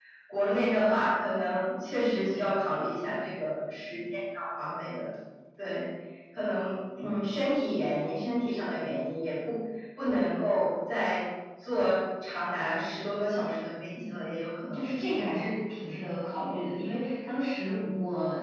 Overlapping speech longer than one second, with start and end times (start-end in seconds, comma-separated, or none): none